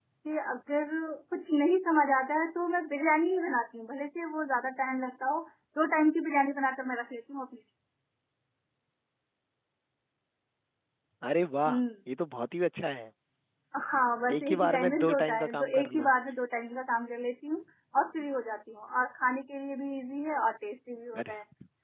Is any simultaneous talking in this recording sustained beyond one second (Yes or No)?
Yes